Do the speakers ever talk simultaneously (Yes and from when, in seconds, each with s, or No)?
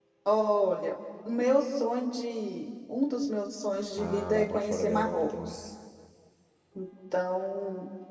Yes, from 4.0 s